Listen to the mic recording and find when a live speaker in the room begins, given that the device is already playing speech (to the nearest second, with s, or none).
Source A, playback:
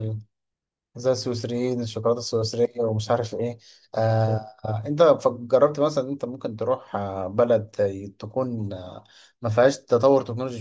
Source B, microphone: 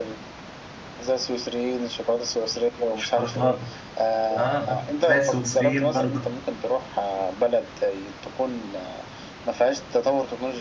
3 s